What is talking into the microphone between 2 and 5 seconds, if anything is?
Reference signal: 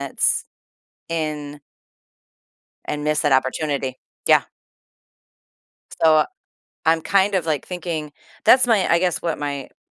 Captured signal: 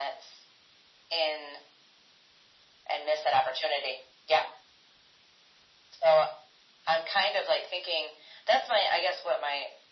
echo only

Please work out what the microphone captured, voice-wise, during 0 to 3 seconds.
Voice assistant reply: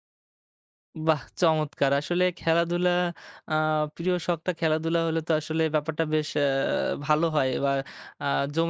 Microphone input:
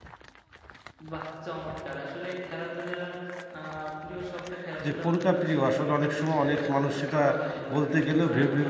echo only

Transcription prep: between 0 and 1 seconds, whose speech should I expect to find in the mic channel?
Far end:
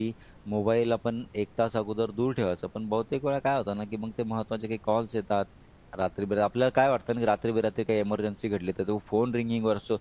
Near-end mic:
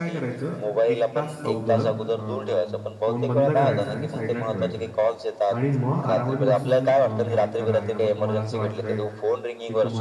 both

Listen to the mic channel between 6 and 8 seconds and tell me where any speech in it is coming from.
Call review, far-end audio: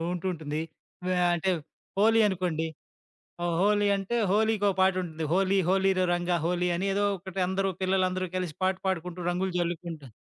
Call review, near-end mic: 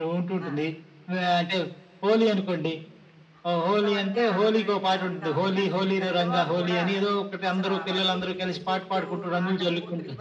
both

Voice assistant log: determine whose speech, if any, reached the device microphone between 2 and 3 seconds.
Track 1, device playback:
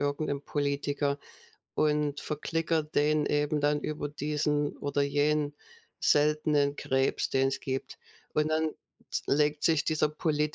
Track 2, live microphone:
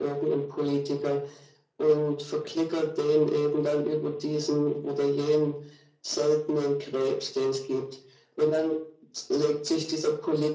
echo only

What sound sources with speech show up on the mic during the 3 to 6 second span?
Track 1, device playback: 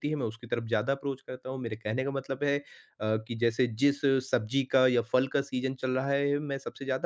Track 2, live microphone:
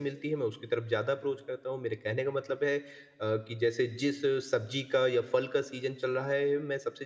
echo only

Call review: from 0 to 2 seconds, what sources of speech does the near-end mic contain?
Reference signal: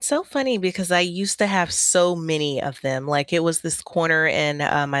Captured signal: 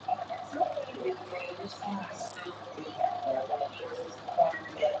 echo only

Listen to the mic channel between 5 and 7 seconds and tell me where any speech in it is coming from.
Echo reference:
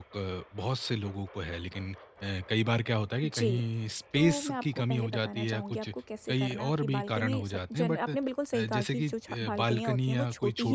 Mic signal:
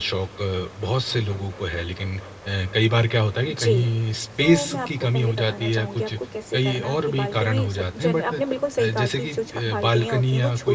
echo only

